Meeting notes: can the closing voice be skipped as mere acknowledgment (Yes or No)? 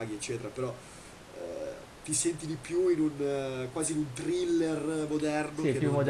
No